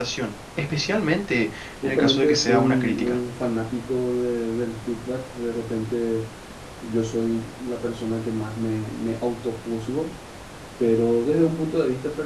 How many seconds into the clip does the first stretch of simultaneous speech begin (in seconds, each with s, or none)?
1.8 s